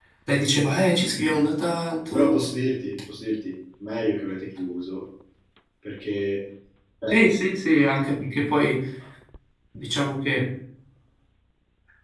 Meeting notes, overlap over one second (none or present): none